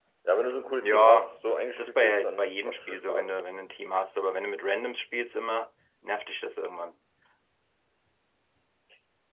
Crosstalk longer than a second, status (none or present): present